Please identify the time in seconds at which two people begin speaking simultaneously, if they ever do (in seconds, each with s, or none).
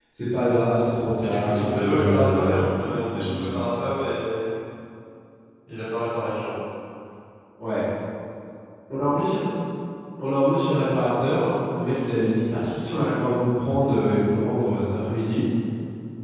1.2 s